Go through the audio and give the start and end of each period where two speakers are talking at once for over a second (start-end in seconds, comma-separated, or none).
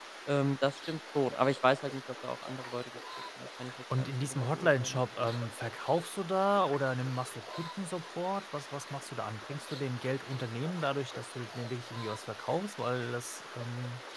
4.0-5.3